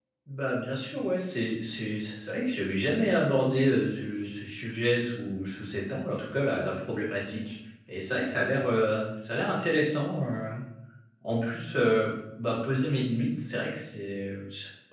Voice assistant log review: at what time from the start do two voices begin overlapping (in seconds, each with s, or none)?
none